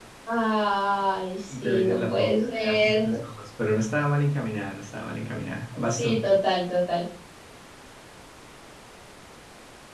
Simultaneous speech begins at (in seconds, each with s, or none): 1.5 s